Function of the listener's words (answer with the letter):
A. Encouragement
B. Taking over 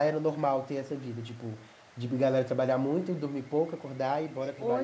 B